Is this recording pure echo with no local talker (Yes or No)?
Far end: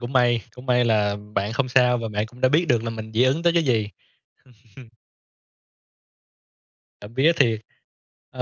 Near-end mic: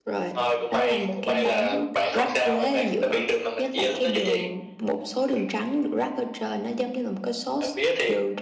No